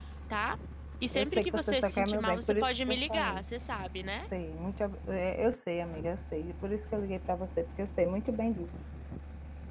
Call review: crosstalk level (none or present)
present